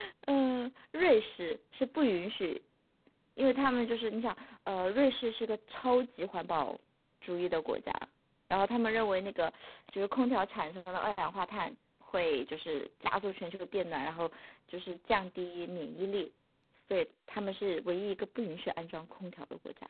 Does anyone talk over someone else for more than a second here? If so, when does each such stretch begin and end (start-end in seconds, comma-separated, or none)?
none